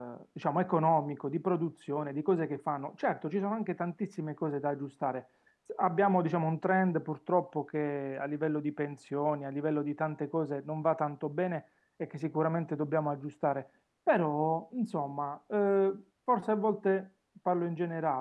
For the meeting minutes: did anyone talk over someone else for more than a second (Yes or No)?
No